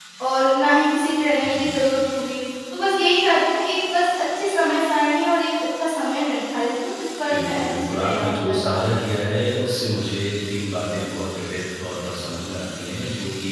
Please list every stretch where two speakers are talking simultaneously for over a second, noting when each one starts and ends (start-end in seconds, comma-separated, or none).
7.3-8.8